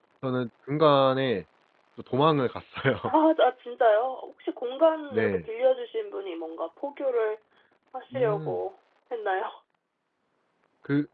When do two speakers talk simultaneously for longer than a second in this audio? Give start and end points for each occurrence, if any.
none

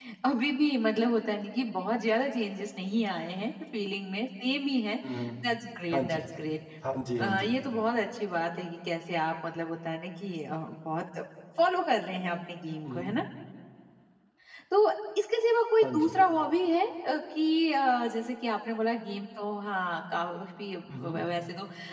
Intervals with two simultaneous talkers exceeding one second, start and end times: none

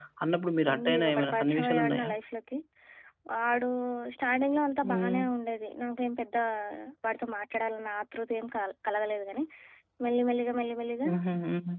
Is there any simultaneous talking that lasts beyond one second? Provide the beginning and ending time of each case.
0.7-2.1

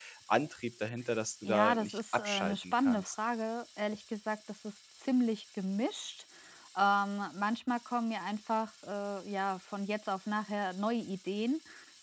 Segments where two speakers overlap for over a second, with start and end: 1.4-3.1

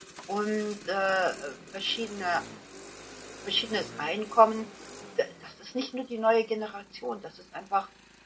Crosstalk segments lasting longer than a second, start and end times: none

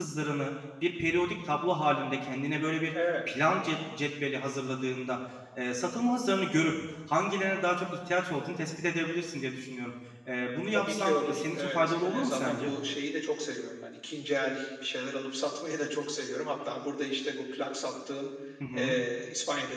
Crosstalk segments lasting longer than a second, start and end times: 10.7-12.7

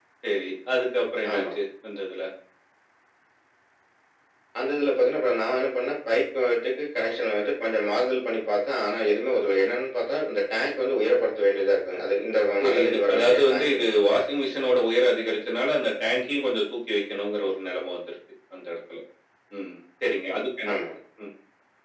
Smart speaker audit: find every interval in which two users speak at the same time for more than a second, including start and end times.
12.6-13.9

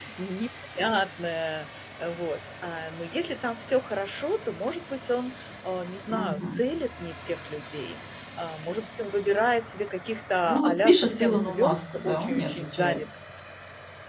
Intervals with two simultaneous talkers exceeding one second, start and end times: 10.5-13.0

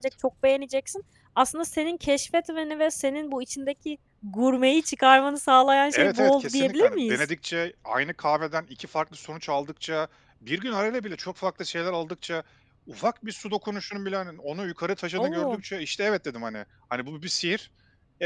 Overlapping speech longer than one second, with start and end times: 5.9-7.3

